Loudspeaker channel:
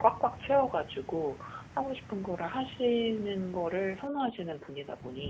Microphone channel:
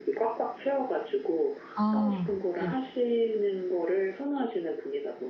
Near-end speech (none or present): present